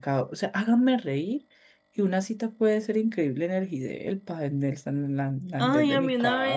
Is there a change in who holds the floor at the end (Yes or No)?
Yes